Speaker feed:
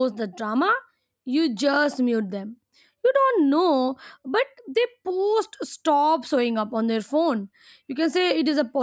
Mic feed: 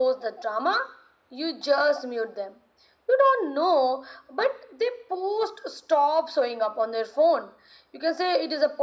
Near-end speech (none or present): none